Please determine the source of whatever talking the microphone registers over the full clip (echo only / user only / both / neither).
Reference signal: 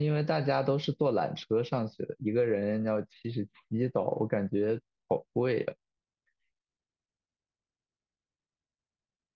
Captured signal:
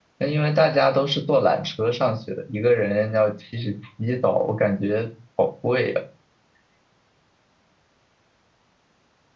echo only